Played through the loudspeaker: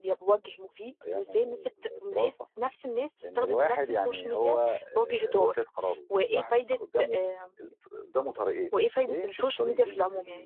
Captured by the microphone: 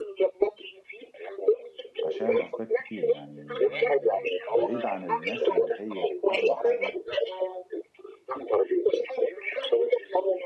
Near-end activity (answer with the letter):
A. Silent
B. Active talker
B